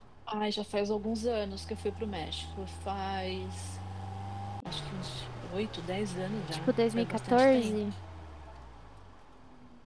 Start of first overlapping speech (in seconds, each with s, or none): 6.5 s